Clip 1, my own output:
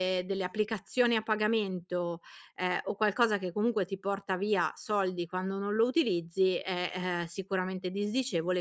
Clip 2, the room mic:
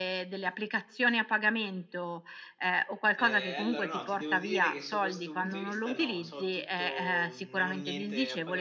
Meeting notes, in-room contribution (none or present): present